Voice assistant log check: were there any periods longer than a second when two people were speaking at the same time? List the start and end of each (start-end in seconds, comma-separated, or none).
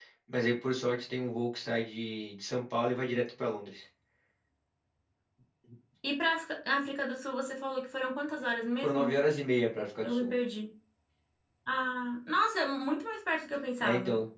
none